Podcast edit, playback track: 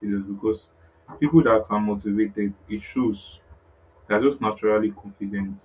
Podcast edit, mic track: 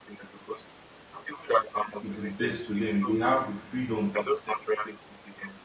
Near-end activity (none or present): present